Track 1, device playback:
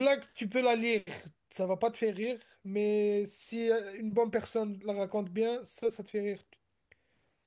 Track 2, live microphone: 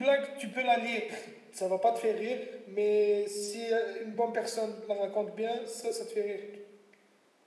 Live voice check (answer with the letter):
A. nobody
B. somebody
A